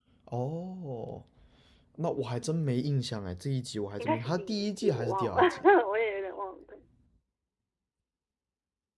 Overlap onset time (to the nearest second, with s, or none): 4 s